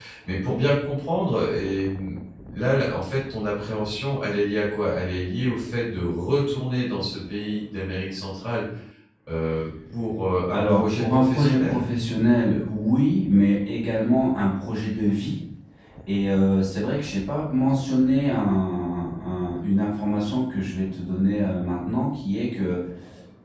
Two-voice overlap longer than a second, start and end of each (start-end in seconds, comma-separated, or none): 10.5-11.8